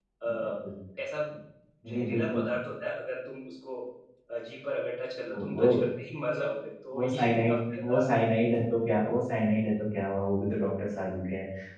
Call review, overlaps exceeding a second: present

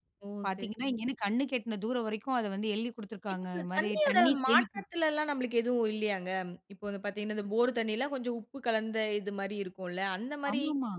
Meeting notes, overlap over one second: present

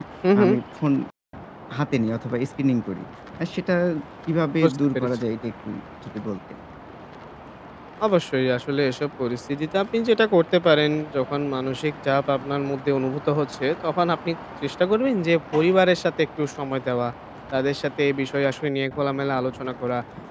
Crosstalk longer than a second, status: none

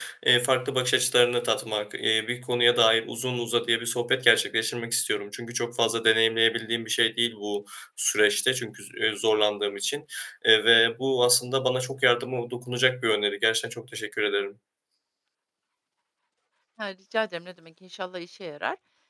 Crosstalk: none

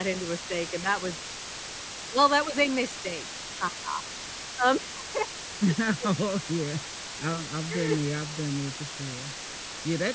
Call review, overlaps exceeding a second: none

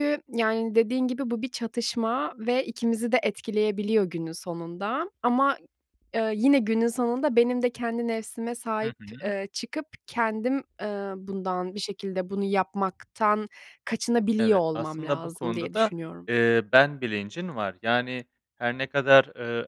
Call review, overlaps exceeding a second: present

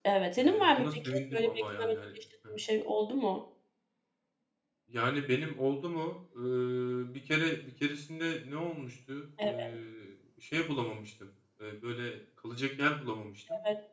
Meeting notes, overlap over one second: present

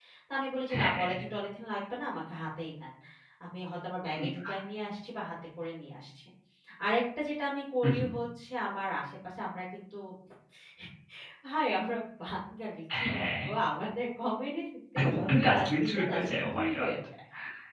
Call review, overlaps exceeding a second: present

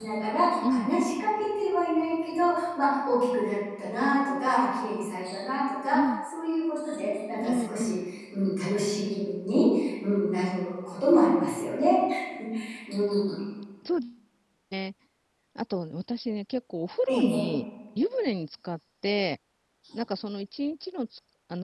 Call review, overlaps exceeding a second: none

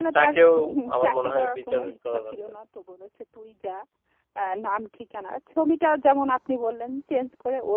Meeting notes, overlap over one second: present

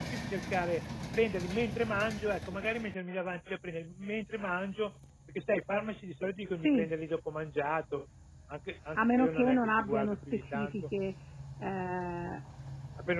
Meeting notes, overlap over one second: present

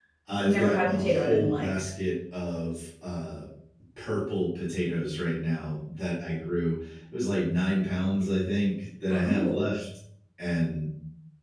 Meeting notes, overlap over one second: present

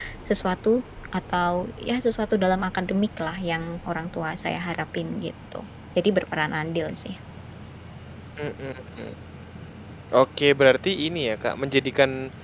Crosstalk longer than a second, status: none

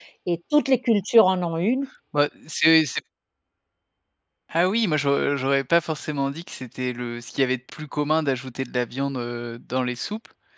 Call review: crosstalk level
none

